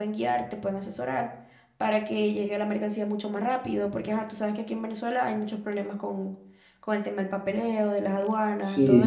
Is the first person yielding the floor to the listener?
Yes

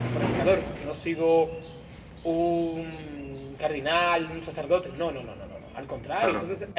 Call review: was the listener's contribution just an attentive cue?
Yes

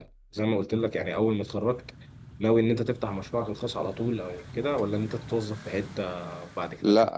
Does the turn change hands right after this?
Yes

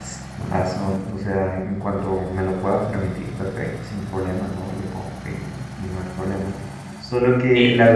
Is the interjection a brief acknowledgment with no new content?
Yes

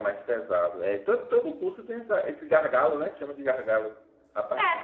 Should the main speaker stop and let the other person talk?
Yes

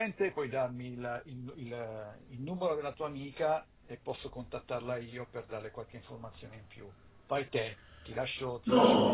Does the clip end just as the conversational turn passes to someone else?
Yes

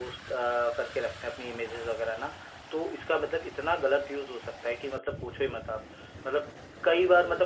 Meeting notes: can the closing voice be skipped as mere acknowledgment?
Yes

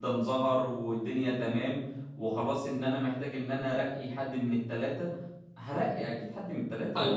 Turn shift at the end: Yes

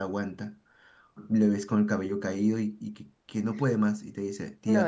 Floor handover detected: Yes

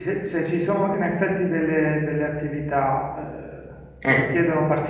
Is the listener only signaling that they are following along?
Yes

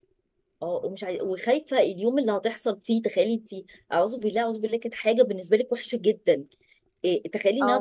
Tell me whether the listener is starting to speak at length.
No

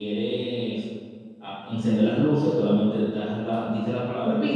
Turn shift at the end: Yes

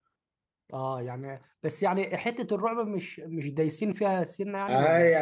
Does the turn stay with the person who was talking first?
No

